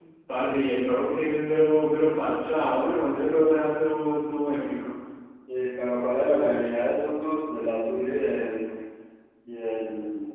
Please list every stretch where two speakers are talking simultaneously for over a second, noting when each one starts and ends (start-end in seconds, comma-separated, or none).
none